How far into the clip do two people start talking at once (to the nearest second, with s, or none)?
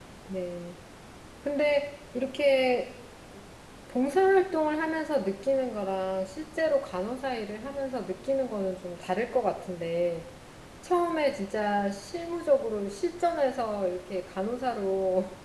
none